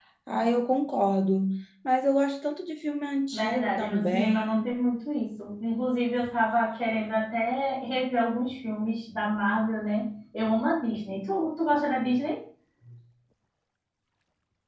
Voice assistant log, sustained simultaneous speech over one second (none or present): present